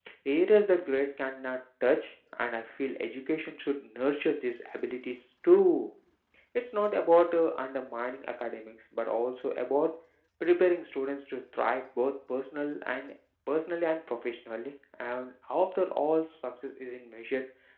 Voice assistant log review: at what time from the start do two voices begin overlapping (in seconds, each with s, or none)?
none